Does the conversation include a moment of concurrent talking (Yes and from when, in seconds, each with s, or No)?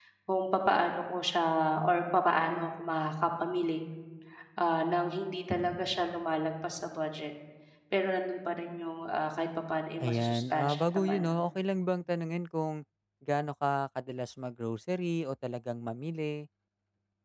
Yes, from 10.0 s